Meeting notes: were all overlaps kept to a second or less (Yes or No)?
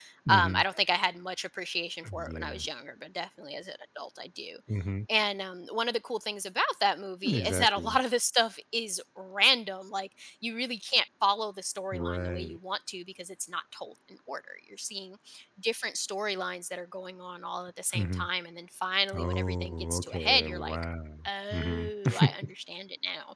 No